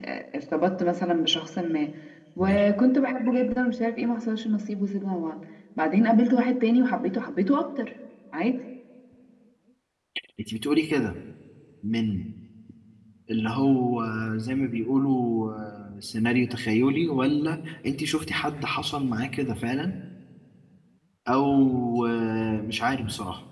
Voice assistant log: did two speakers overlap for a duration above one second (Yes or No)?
No